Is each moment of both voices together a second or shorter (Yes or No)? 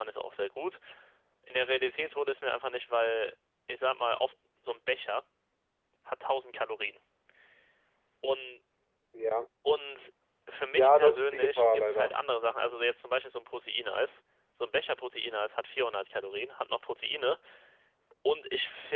No